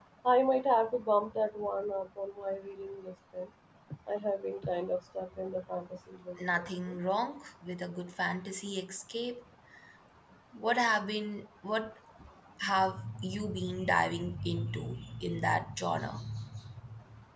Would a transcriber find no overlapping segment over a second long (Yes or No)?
Yes